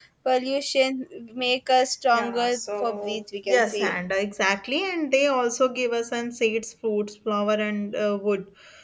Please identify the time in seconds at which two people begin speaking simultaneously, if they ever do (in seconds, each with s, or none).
2.1 s